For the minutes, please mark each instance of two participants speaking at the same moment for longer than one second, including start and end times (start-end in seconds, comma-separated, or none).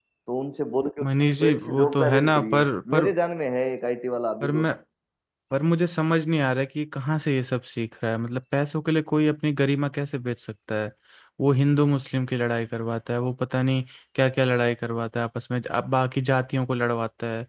1.0-3.0